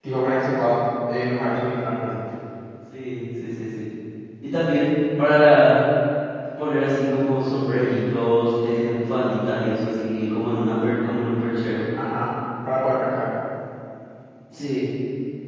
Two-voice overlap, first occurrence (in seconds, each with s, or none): none